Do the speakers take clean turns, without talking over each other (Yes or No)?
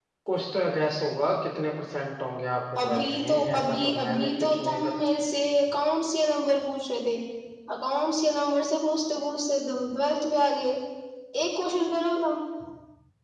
No